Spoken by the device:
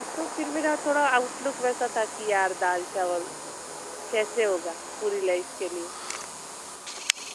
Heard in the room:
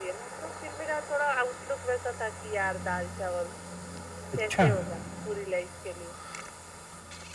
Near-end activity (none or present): present